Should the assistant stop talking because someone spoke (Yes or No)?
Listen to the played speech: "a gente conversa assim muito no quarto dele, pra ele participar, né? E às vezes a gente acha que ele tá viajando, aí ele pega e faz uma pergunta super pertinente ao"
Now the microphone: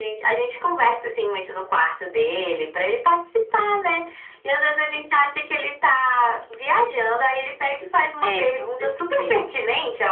Yes